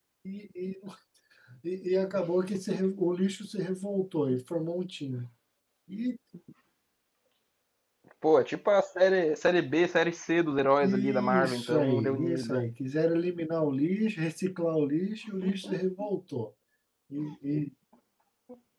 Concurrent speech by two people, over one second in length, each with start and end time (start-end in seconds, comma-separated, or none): 10.8-12.7